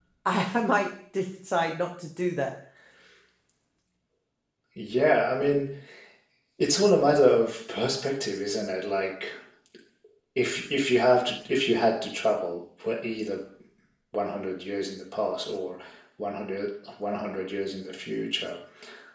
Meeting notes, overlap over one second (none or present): none